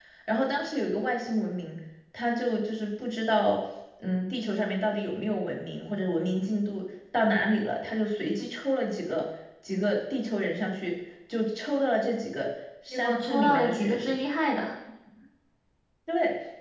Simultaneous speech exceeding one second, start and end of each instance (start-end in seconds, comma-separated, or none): 12.9-14.1